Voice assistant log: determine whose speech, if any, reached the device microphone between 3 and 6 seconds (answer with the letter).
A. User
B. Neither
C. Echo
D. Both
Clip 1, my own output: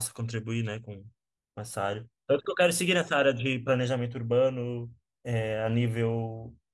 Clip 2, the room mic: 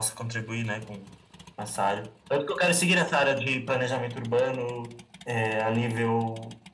C